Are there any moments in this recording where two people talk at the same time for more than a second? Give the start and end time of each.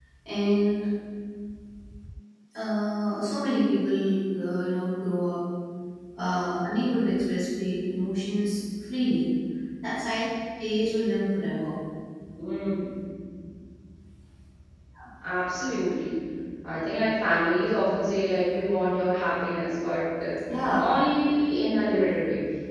none

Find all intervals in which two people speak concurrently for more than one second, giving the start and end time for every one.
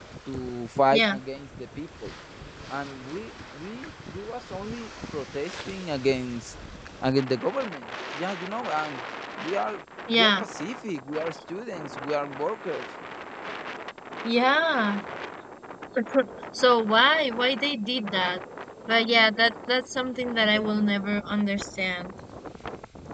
none

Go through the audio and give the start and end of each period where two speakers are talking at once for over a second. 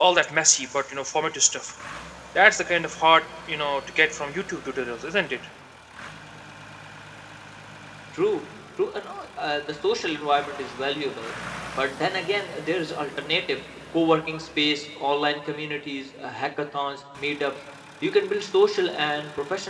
none

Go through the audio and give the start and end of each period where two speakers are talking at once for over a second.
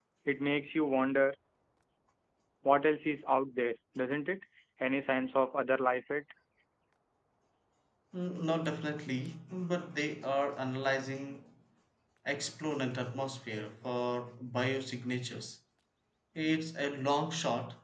none

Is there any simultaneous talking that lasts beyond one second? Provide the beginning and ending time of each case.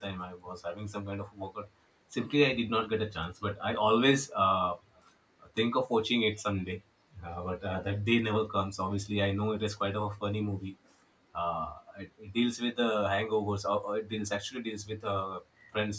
none

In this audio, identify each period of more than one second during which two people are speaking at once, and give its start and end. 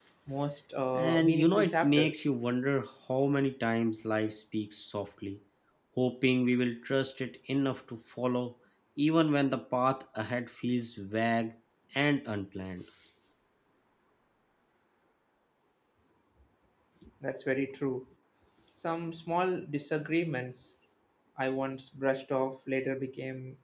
0.9-2.3

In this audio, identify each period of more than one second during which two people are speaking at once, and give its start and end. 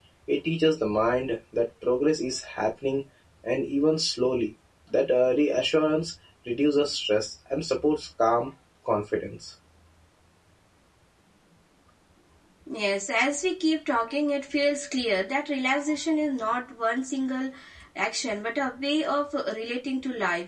none

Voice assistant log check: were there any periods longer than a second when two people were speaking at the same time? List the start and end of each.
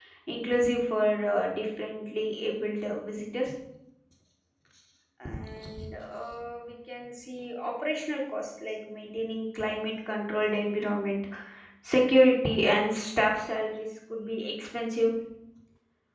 none

